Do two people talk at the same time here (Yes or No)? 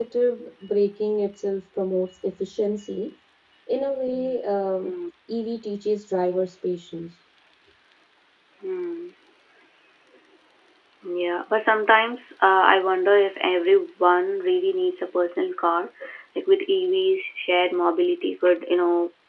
No